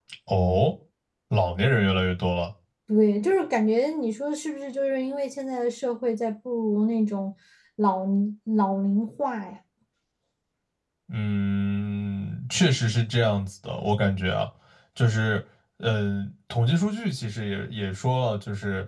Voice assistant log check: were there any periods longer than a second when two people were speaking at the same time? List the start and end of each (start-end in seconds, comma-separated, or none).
none